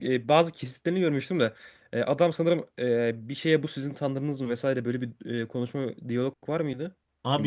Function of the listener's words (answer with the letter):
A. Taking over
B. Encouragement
A